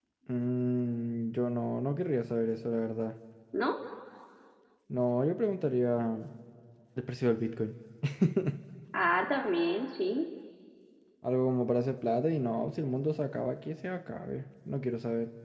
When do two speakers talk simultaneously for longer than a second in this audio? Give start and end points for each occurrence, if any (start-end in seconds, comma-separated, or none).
none